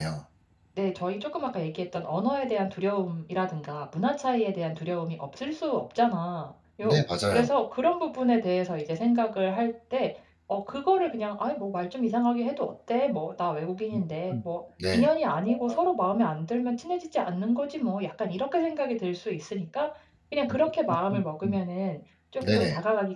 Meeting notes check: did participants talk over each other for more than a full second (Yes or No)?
No